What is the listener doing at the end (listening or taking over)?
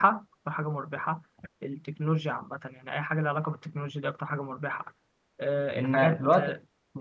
taking over